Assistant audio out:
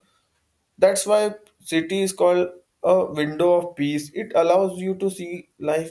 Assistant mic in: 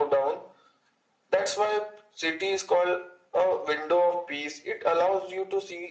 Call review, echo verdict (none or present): present